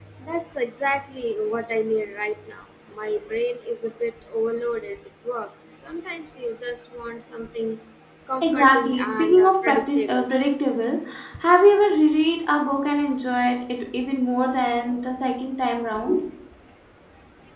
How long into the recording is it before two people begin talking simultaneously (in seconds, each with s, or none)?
8.4 s